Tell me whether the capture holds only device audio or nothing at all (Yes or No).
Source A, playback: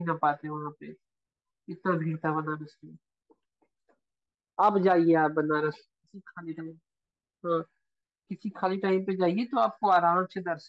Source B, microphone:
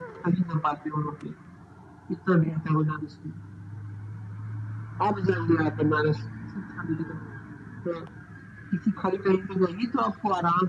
Yes